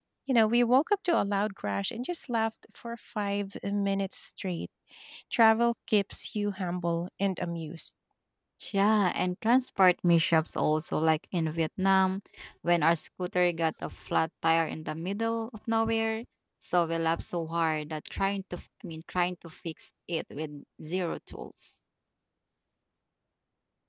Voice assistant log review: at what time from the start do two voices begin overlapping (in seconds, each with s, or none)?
none